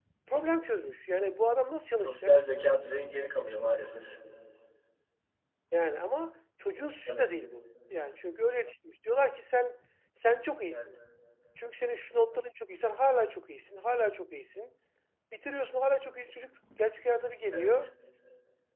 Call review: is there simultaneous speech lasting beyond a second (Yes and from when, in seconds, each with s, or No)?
No